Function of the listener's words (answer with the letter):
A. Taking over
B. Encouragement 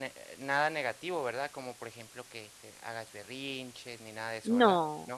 A